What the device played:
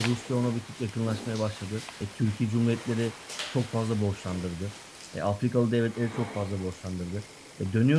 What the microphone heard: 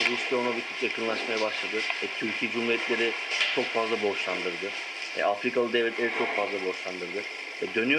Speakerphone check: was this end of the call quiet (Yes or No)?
Yes